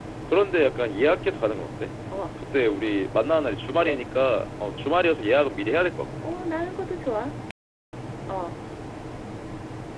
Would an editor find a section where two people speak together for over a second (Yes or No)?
No